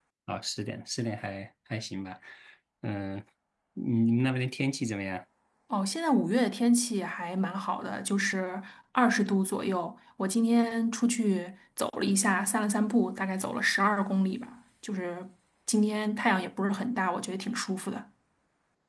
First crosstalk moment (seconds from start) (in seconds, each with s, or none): none